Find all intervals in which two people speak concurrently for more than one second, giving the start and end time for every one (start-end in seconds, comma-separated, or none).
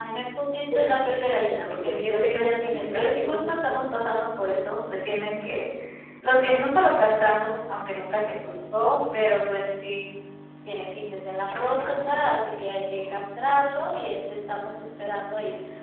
1.7-3.5